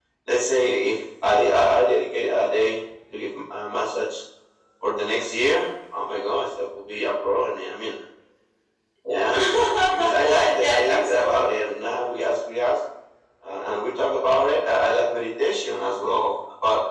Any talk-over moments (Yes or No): Yes